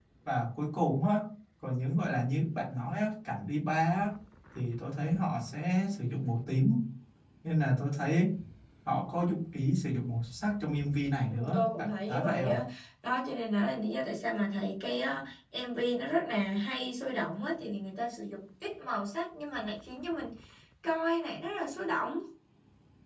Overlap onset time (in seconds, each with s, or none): 11.3 s